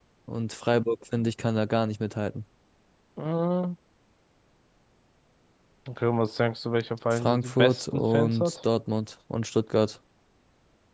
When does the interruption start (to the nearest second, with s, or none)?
7 s